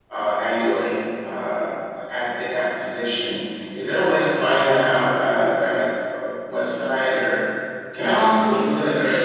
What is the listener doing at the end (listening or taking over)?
taking over